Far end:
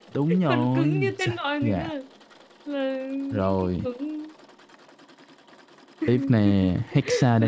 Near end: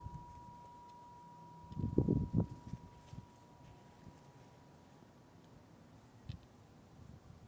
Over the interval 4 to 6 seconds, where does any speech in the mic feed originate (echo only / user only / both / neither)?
neither